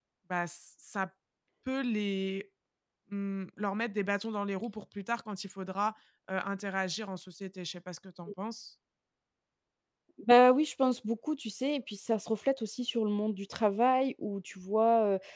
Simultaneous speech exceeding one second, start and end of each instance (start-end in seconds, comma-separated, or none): none